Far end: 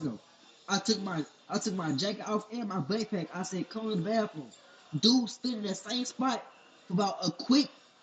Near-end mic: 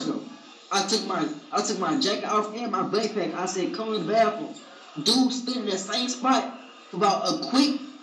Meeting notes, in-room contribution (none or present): none